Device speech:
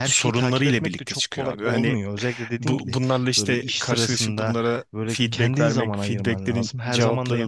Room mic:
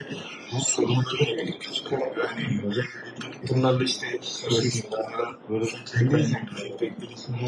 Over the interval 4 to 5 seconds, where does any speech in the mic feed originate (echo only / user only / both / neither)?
echo only